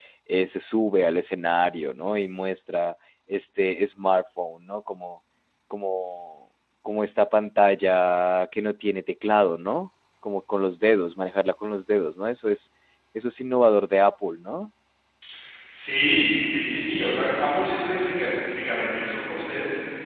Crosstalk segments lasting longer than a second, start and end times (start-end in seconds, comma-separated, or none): none